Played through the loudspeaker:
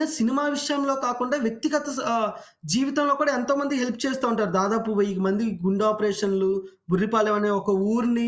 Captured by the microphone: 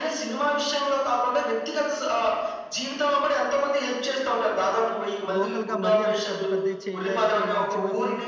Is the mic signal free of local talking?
No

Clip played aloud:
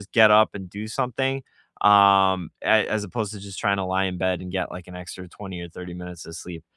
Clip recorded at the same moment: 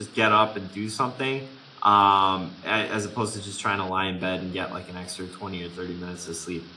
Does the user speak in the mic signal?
No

